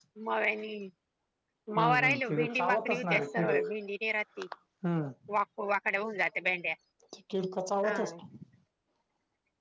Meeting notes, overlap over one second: present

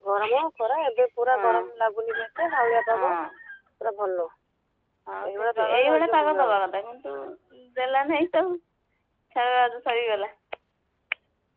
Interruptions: present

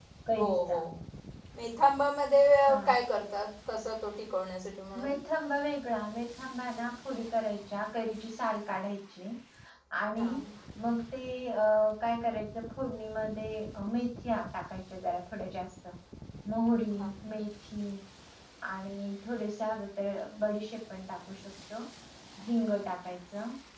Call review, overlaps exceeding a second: none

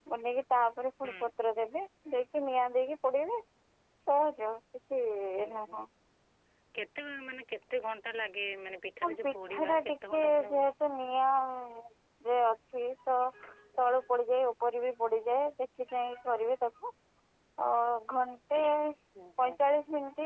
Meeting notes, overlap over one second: present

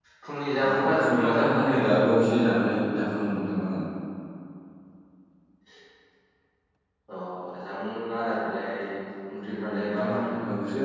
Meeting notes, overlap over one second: present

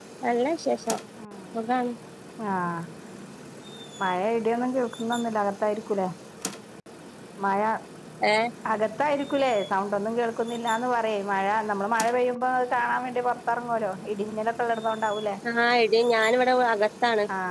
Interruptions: none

